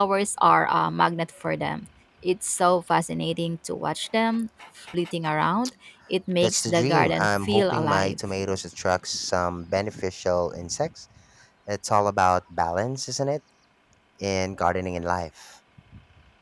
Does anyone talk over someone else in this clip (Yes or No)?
Yes